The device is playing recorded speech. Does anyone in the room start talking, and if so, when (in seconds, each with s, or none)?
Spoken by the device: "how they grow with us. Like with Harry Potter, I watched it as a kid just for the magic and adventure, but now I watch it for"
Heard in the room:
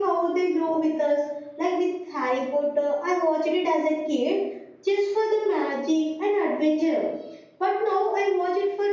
none